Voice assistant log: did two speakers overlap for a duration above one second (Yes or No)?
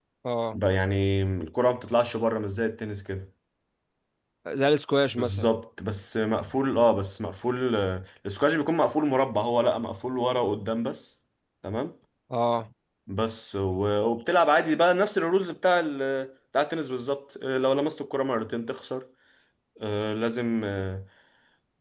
No